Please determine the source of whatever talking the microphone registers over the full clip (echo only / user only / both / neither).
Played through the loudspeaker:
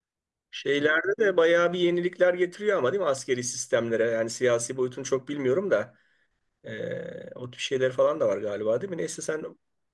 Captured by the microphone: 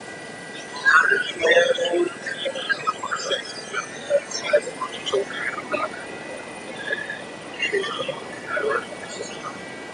echo only